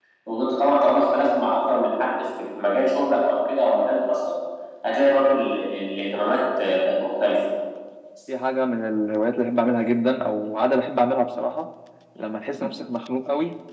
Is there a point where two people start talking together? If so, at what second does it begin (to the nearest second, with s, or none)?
none